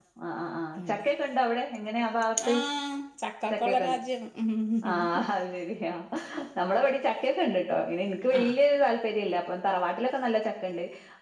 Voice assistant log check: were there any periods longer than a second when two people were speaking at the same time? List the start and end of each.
none

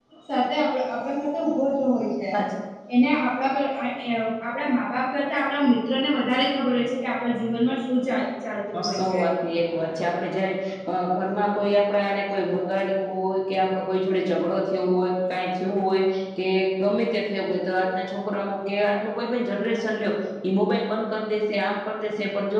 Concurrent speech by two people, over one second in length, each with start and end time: none

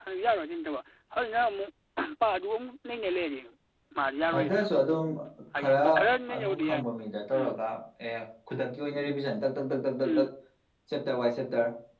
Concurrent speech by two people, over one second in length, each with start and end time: none

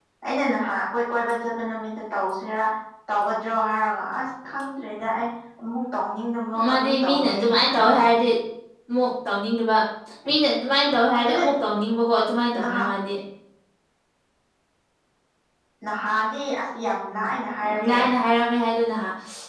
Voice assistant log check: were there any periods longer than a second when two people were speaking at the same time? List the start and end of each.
6.6-7.8

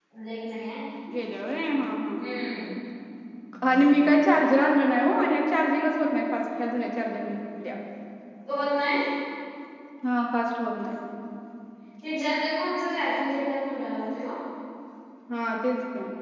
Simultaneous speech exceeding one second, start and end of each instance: none

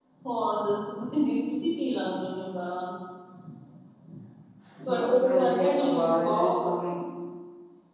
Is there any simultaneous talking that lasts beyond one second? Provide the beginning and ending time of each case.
5.0-6.9

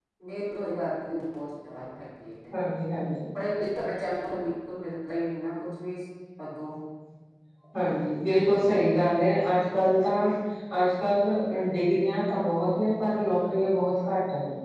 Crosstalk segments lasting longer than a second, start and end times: none

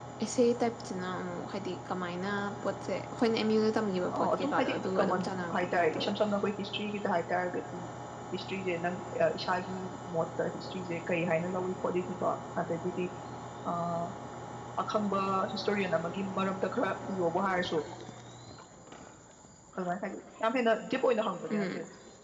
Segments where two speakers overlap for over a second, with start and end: 4.1-6.1

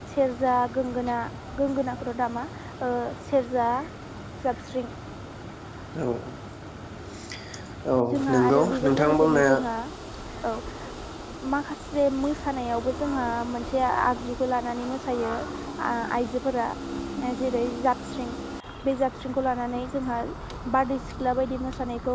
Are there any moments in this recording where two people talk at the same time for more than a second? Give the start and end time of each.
8.3-9.5

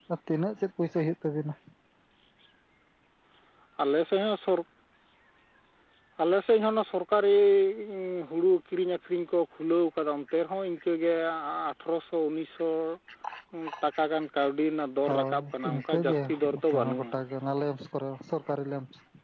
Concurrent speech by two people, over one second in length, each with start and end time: 15.1-17.1

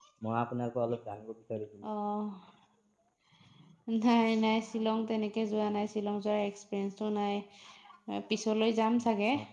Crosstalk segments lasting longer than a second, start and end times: none

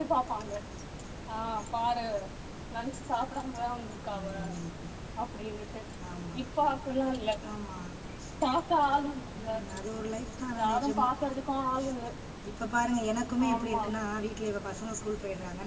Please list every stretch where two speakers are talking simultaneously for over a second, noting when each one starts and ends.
none

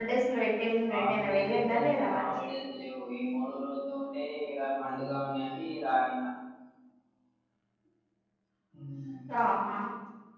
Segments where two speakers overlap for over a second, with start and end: 0.9-2.3

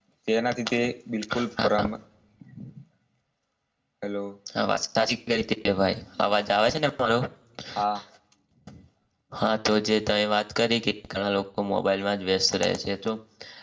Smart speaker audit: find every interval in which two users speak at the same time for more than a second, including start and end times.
none

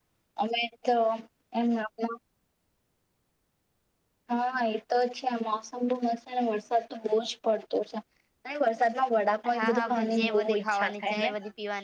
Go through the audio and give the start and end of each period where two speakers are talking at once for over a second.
9.5-11.3

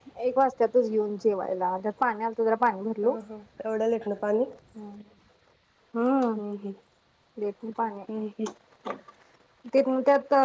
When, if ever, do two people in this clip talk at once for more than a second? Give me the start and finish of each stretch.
none

